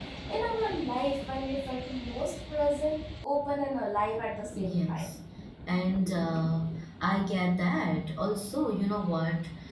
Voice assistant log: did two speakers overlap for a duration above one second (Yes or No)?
No